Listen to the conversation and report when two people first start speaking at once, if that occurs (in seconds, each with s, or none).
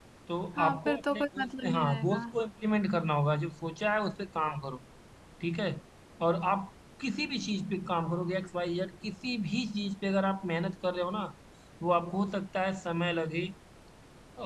0.6 s